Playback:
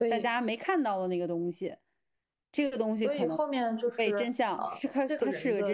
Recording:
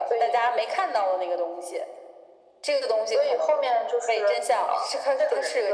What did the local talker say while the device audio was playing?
none

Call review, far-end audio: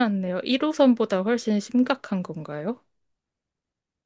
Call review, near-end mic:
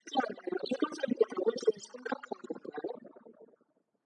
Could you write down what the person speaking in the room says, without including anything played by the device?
none

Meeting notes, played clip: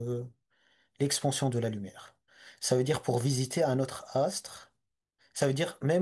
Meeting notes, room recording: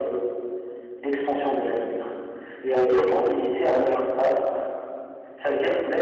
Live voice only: Il y a, il y a plein de... Ouais, ouais,

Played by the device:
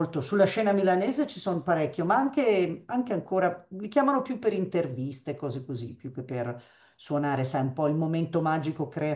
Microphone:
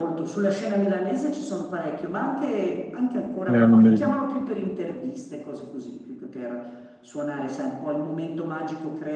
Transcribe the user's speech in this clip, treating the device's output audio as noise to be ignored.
eh, non mi ricordo.

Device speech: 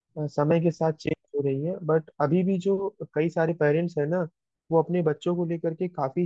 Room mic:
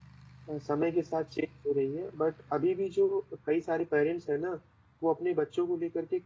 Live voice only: none

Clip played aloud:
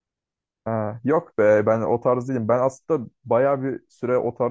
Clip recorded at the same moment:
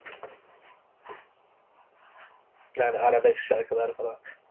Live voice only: Yani arabesk şarkılar falan.

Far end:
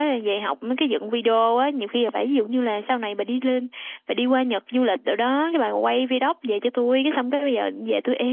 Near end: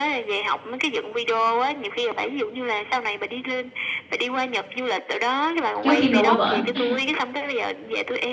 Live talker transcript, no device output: trước khi mà qua Ừ. bển ha

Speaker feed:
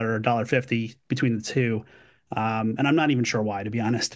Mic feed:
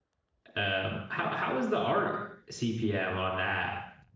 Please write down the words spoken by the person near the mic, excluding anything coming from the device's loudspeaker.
Um, how how is the art CPM on that?

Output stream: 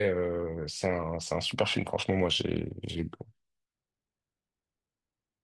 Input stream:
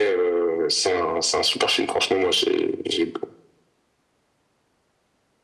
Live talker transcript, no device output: none

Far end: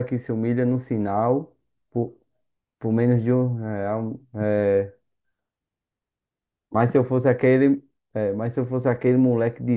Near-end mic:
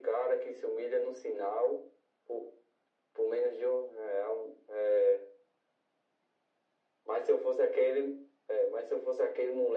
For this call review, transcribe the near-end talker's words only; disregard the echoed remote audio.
none

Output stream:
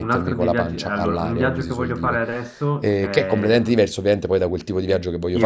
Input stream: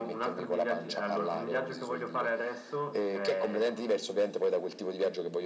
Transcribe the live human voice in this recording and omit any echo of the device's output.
none

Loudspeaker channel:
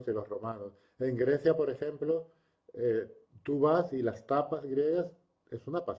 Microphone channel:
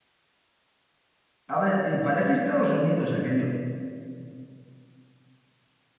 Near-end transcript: A ver, eh, parece Estados Unidos aquello.

